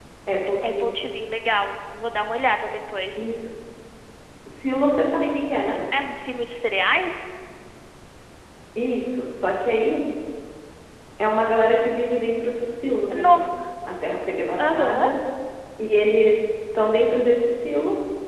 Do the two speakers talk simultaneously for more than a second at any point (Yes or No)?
No